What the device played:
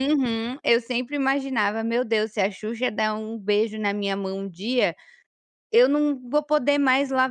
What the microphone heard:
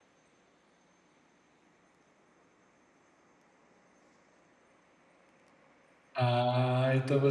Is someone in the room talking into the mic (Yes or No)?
Yes